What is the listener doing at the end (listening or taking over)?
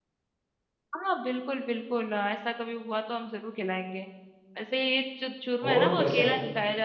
listening